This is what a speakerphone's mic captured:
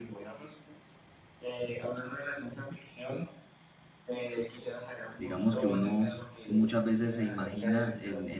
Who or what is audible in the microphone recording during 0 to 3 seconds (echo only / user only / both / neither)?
echo only